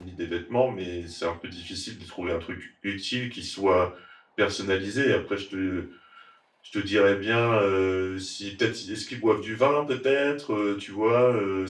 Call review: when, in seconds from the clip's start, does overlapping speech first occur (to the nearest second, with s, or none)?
none